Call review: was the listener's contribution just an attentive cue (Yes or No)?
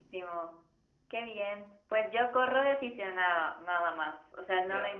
Yes